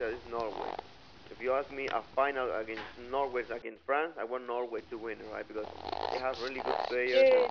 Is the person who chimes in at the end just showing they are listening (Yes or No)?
Yes